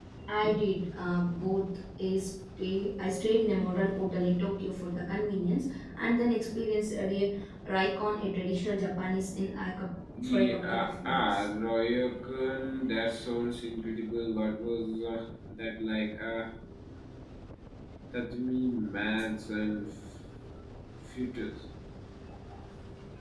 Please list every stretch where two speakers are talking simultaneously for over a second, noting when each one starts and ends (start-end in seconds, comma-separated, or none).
10.2-11.4